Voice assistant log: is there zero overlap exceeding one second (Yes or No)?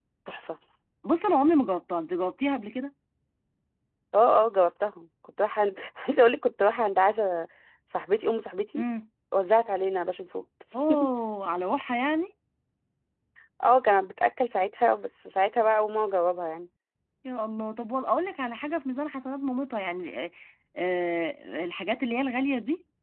Yes